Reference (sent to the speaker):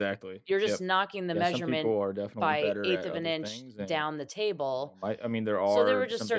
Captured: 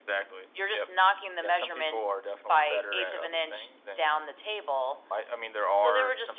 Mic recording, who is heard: echo only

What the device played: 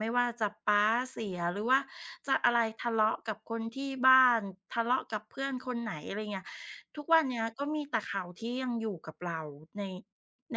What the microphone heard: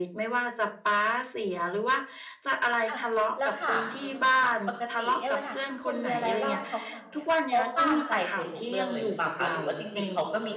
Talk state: both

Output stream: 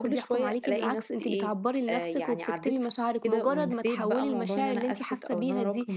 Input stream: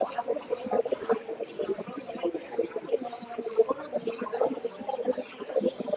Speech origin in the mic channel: echo only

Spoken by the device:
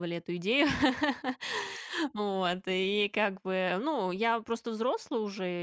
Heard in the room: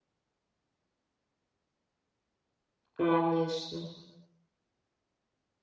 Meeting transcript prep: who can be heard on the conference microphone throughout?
user only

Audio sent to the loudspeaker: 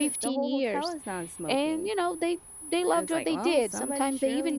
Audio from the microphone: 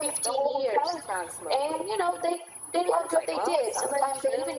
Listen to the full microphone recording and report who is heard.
echo only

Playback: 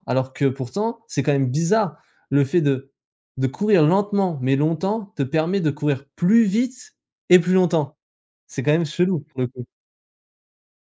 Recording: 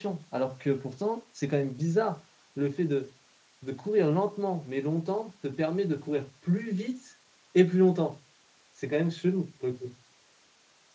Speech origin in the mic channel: echo only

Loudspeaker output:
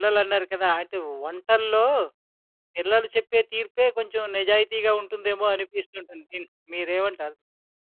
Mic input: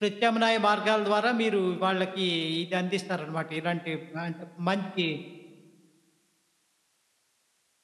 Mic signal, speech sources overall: user only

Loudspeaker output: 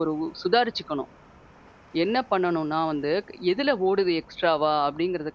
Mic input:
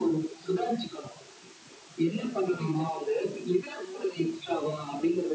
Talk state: both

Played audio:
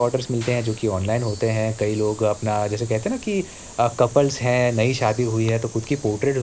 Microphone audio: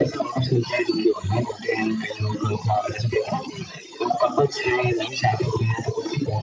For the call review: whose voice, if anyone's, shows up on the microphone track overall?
echo only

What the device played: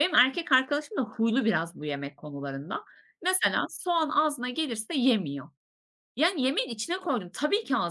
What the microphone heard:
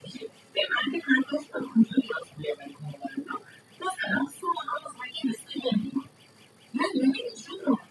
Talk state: echo only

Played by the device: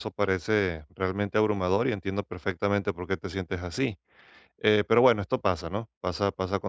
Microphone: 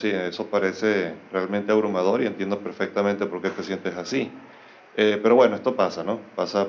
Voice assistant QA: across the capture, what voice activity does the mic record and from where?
echo only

